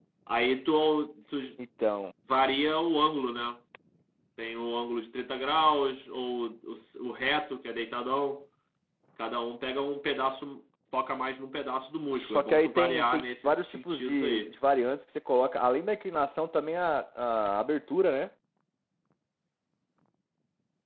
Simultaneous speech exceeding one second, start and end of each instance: 12.1-14.5

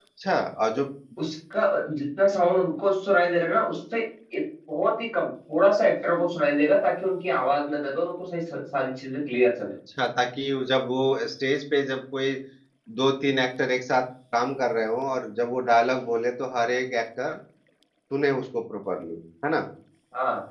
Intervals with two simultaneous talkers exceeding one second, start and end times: none

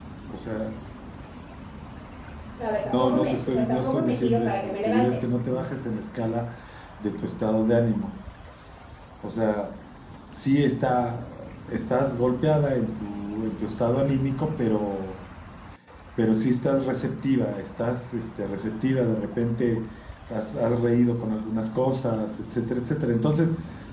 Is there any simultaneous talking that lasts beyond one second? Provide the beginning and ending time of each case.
2.8-5.2

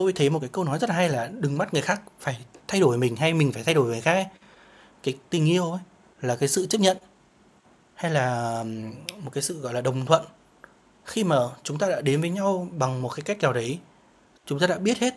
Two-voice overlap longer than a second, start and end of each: none

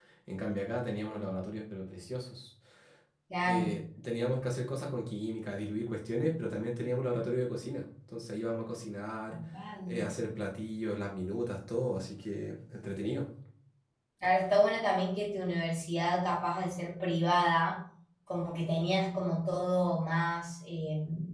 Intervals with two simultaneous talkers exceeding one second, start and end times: none

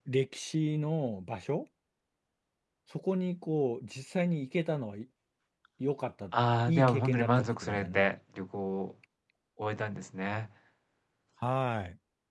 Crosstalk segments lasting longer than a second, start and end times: 6.7-8.1

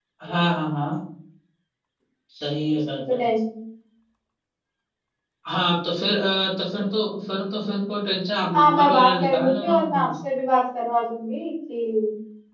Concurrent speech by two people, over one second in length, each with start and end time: 8.5-10.1

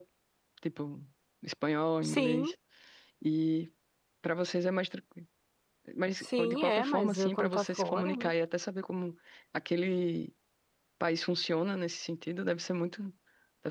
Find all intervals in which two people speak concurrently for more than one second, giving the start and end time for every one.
6.2-8.3

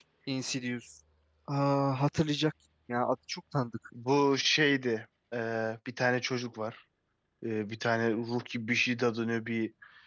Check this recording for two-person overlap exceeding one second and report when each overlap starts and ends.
none

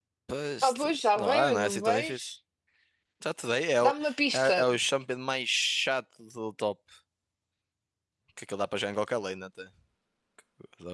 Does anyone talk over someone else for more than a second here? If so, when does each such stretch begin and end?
0.6-2.3

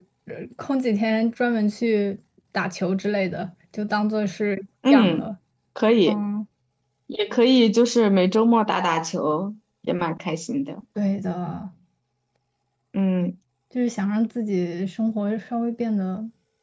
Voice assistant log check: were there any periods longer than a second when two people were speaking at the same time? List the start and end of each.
none

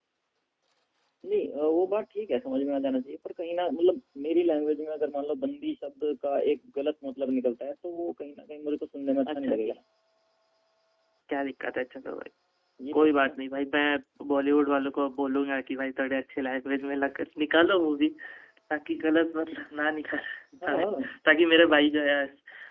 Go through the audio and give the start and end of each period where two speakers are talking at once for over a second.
none

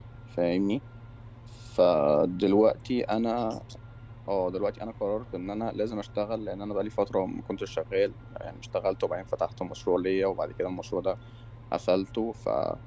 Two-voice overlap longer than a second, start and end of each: none

